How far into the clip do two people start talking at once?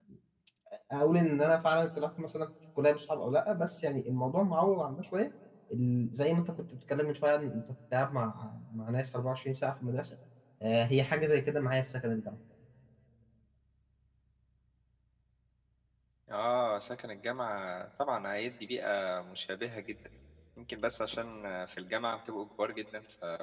none

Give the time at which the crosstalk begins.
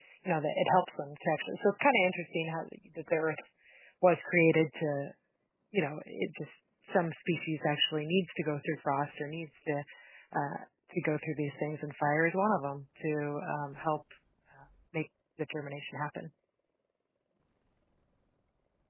none

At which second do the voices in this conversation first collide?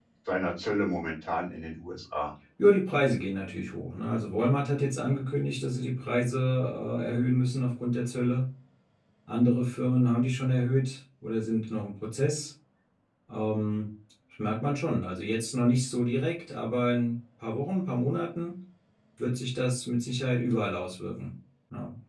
none

